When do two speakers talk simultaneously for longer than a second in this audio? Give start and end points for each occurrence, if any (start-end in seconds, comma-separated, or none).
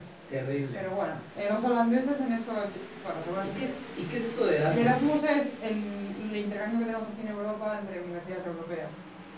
none